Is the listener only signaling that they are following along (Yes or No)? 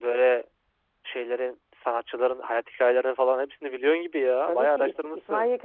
No